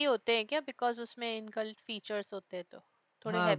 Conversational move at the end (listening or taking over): taking over